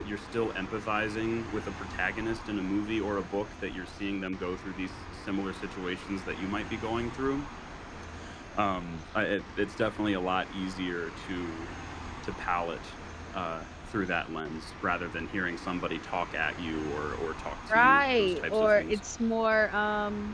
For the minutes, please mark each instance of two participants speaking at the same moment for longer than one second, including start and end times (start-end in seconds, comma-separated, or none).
17.7-19.0